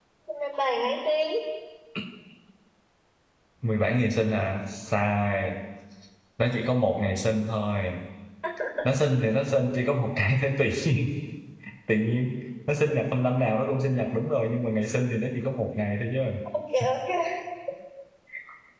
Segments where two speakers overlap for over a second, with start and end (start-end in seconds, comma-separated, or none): none